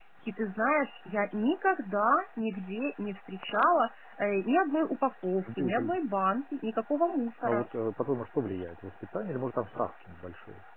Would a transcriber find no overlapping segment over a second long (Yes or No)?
Yes